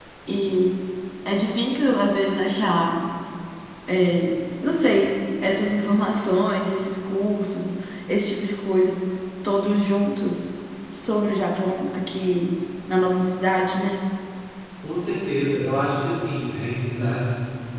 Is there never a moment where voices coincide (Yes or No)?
Yes